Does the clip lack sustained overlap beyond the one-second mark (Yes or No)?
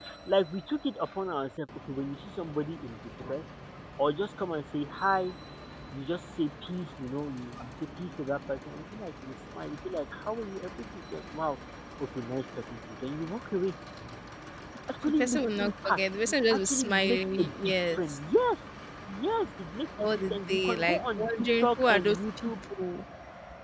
No